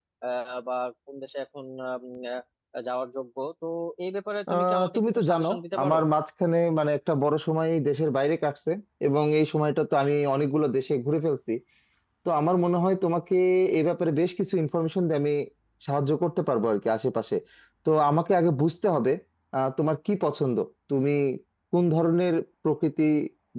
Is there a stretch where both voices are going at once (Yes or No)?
Yes